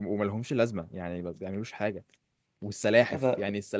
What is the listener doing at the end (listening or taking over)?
listening